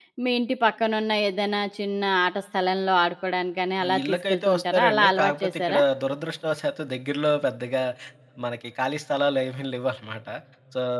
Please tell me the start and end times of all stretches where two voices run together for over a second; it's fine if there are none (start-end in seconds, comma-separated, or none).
3.8-5.8